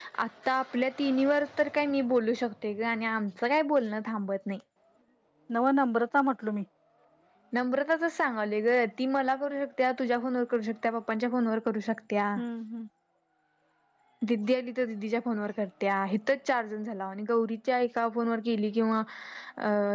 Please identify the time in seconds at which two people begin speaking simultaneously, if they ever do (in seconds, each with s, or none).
none